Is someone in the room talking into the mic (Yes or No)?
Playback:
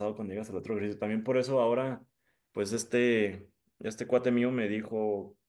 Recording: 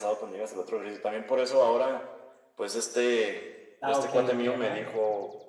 Yes